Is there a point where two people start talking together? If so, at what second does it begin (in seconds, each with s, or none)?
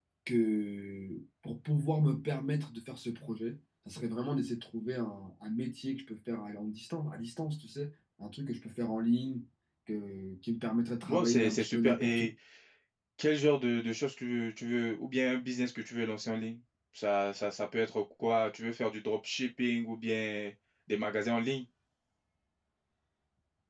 11.0 s